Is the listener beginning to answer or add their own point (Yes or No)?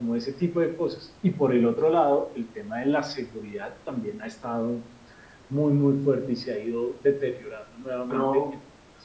Yes